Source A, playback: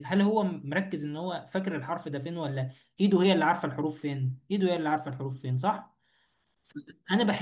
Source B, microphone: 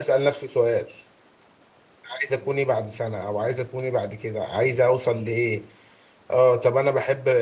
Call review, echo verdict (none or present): none